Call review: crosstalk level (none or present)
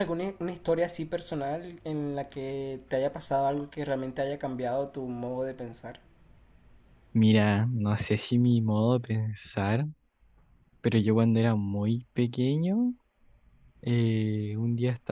none